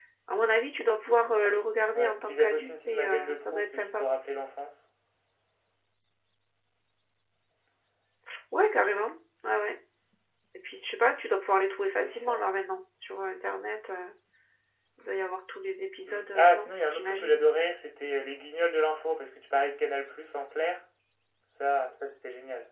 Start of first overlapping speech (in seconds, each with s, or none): 1.9 s